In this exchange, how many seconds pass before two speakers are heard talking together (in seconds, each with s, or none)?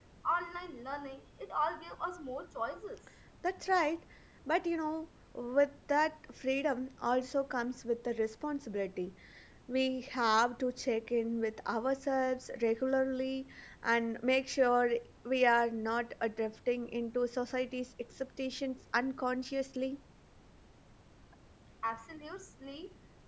none